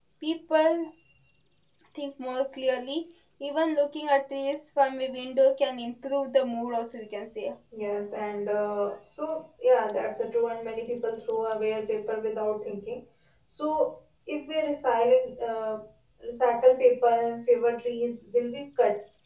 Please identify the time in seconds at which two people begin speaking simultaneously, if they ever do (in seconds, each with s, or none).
none